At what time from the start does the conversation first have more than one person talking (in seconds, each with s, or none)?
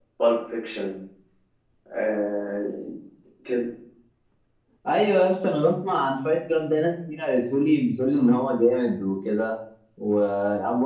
none